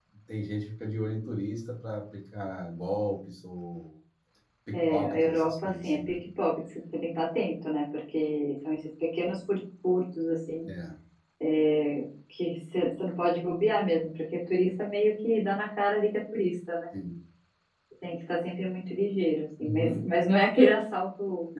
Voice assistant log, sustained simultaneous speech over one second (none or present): present